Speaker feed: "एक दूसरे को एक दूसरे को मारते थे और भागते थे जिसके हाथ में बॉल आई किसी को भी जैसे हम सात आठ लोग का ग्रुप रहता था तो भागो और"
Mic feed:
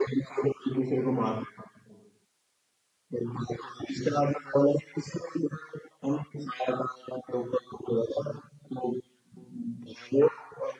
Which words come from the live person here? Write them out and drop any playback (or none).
none